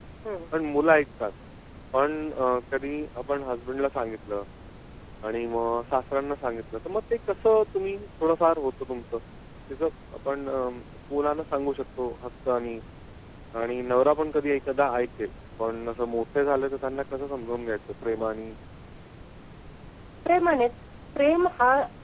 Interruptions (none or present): none